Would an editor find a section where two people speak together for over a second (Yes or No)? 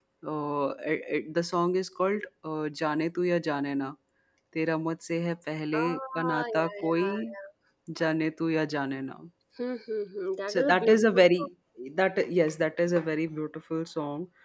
Yes